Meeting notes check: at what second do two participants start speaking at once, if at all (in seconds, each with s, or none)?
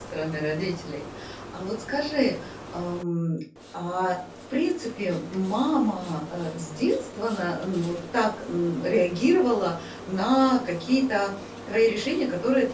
none